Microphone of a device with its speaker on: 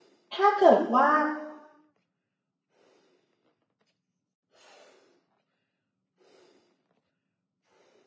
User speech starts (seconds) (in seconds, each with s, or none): 0.3 s